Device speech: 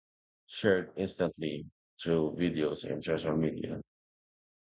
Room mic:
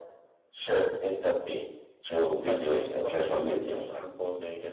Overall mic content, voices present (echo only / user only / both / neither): both